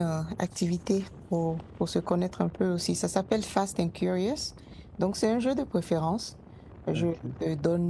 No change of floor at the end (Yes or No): Yes